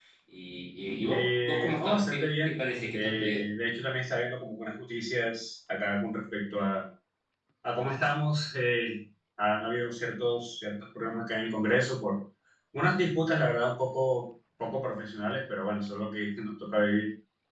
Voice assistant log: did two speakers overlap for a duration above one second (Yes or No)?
Yes